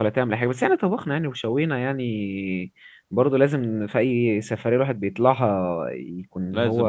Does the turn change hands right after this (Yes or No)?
Yes